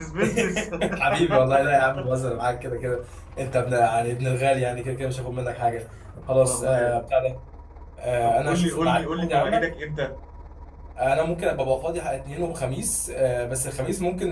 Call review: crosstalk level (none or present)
present